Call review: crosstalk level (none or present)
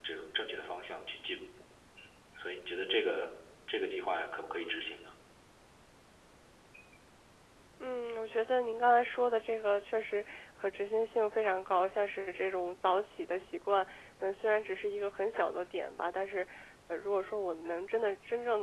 none